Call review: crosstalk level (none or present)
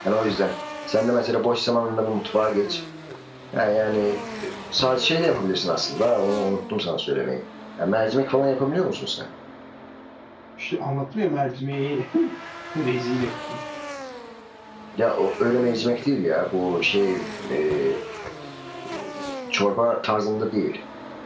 none